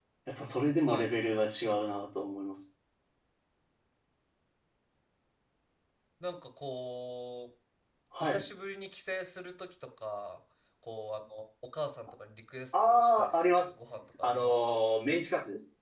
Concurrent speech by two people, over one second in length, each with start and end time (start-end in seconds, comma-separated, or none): 12.8-14.5